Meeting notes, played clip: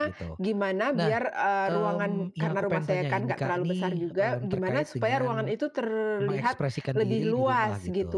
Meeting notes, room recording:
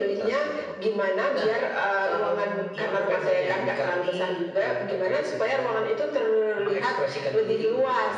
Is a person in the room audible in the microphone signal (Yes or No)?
No